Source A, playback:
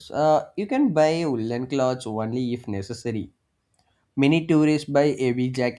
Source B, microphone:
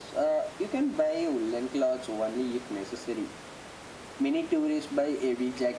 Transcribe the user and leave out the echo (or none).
none